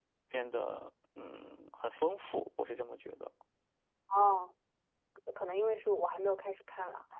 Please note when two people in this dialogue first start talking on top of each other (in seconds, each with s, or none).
none